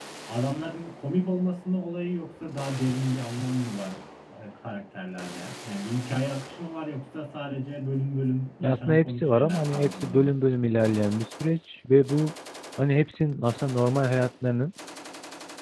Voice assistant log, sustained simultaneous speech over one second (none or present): present